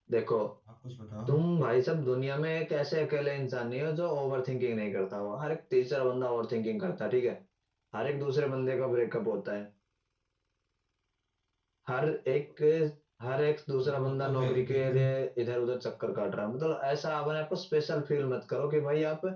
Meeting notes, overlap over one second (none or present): present